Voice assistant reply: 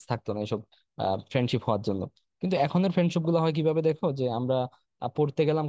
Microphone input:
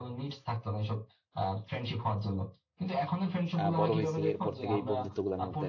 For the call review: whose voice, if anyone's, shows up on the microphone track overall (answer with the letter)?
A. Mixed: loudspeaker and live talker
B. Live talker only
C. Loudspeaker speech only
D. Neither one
A